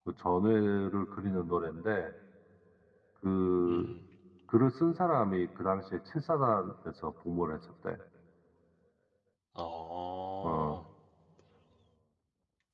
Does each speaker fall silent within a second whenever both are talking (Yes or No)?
Yes